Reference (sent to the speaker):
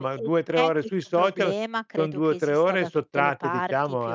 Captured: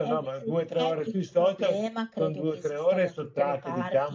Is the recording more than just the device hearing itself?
No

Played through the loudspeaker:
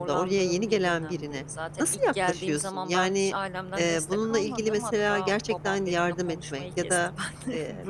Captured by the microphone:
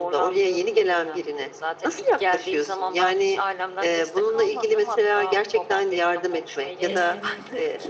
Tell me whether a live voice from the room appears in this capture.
Yes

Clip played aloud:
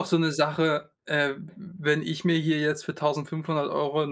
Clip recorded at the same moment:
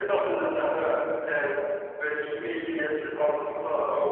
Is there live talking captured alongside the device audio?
No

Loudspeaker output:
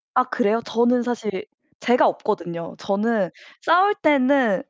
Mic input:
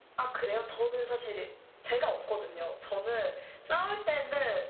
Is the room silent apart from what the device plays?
Yes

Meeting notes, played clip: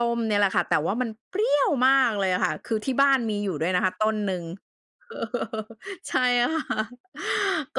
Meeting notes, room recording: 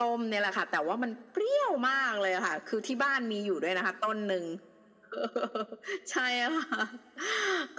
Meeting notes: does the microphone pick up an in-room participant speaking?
No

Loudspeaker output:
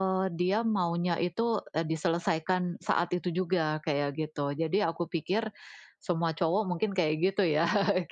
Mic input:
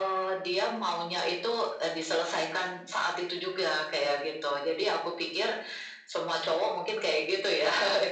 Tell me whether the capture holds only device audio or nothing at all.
Yes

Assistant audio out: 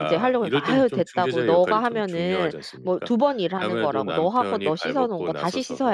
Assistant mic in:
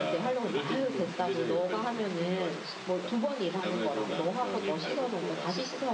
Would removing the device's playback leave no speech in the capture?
Yes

